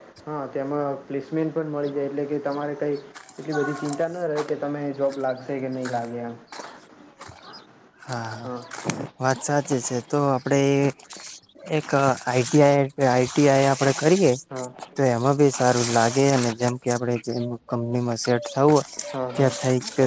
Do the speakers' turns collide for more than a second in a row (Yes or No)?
No